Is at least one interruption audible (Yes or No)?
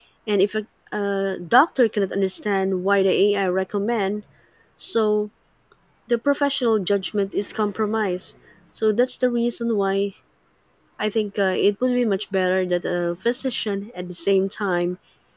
No